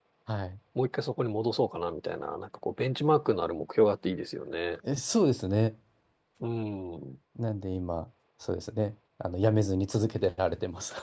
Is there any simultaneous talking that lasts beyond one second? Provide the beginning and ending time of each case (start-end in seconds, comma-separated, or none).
none